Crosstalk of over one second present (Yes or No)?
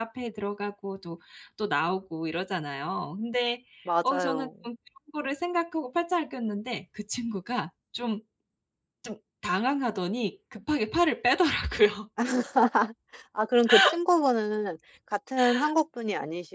No